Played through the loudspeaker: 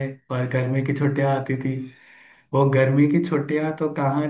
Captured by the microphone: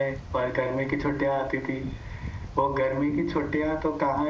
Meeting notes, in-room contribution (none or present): none